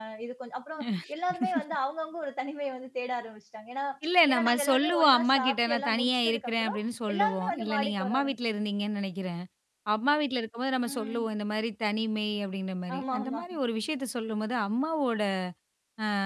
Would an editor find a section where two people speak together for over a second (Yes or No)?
Yes